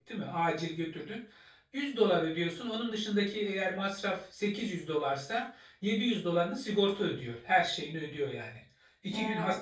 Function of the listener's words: listening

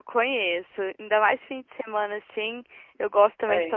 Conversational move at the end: listening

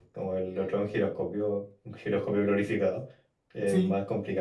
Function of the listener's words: listening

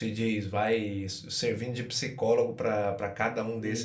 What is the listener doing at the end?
listening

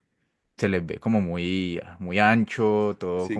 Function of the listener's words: taking over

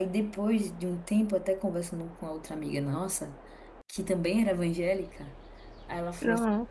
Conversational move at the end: listening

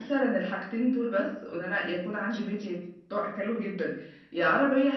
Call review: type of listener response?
listening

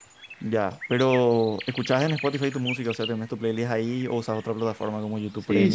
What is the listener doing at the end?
taking over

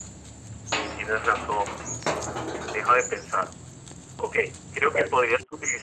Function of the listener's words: listening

